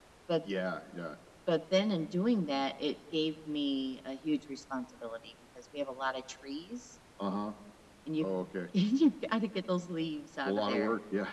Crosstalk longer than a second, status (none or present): none